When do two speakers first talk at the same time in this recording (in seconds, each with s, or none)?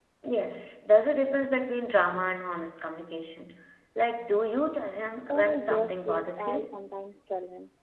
5.3 s